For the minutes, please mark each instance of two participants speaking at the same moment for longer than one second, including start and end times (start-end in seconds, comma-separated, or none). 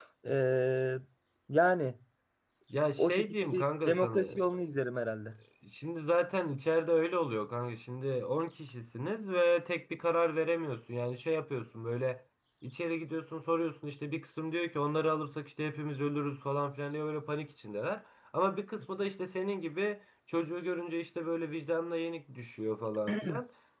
3.0-4.3